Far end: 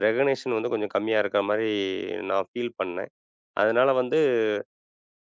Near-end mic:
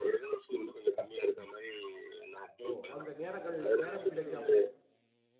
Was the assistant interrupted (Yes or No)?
Yes